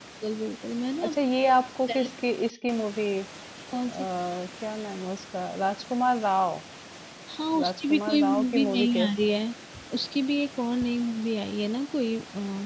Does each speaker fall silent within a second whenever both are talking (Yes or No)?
No